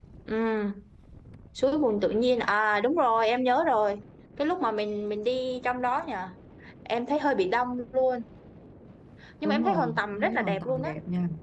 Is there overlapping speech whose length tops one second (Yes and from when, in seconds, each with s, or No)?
Yes, from 9.4 s